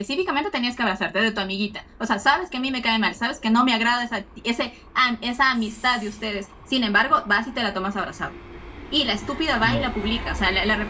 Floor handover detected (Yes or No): No